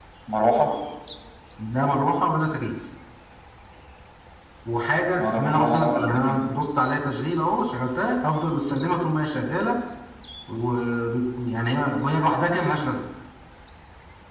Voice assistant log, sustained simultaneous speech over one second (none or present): present